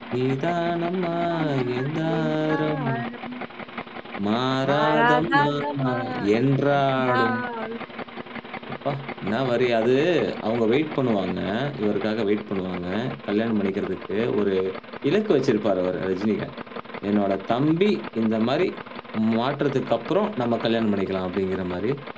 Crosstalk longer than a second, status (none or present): present